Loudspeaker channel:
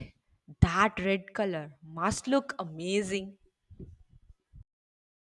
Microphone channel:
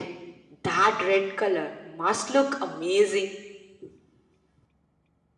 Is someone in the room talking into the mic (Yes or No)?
No